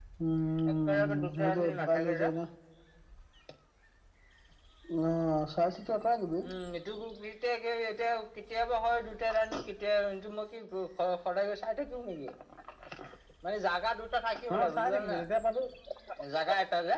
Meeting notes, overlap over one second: present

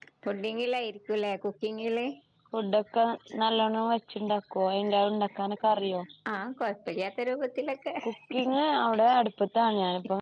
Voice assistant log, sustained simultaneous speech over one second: none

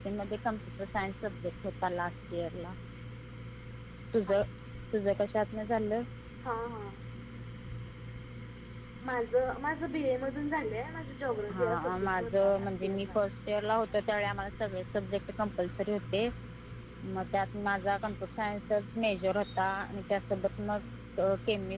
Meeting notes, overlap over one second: present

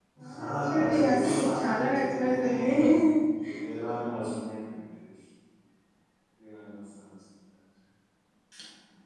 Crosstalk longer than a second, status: present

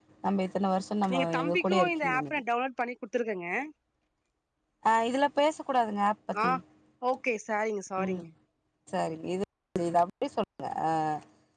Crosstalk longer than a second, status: present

